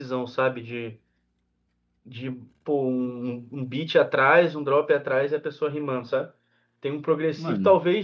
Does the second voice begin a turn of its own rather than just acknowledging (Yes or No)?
No